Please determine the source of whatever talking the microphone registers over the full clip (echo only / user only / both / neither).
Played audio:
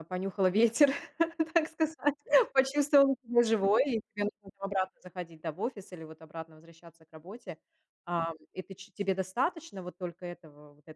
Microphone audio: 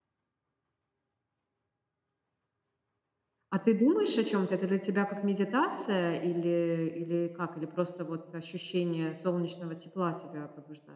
user only